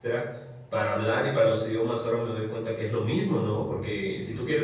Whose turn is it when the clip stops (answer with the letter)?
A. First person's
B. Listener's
A